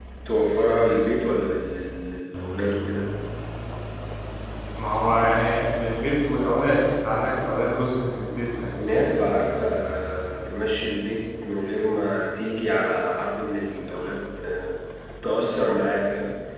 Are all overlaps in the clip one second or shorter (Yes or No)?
Yes